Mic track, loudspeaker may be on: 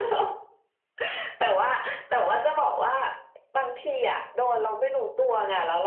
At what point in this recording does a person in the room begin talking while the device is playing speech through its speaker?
none

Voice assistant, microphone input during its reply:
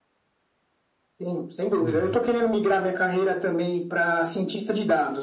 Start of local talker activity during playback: 1.8 s

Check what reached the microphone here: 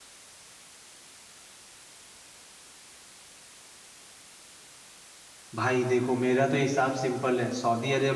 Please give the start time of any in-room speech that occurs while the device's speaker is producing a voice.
5.5 s

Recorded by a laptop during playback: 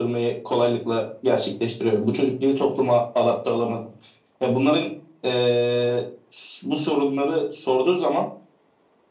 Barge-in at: none

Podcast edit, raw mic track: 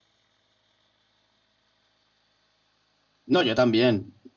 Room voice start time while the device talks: 3.3 s

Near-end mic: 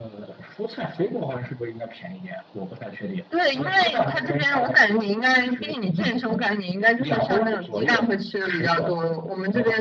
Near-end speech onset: none

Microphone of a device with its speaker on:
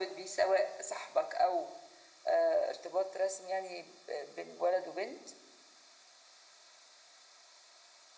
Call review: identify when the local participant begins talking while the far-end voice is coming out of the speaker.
none

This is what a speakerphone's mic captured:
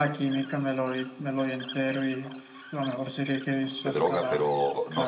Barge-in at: 3.8 s

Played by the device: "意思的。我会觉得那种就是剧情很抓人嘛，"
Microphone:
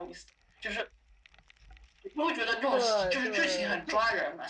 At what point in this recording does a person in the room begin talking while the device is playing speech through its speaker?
2.7 s

